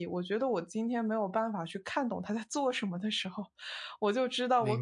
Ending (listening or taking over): listening